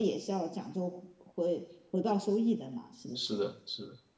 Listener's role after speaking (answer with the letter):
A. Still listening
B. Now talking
B